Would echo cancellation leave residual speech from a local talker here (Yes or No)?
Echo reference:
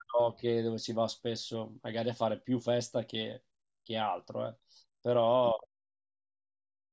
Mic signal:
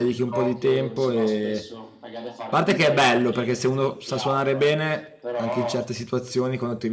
Yes